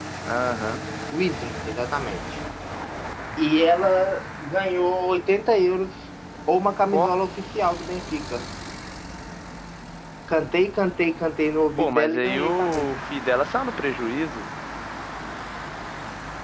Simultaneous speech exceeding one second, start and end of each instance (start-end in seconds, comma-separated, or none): 11.8-13.0